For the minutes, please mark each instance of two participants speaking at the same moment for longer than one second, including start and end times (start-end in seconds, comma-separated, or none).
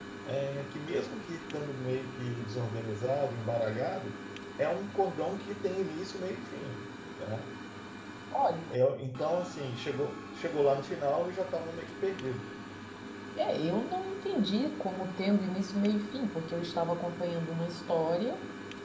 none